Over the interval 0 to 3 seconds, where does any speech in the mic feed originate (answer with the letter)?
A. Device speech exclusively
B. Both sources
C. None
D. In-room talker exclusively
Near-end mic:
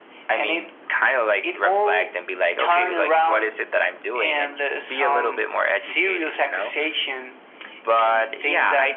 A